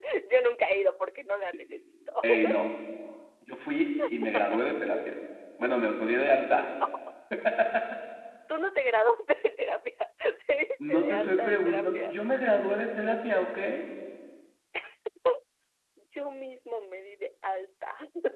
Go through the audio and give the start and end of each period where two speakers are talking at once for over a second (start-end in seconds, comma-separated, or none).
10.9-12.1